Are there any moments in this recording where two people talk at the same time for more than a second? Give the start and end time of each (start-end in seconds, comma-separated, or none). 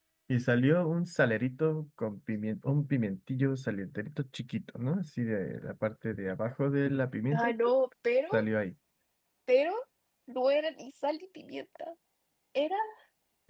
none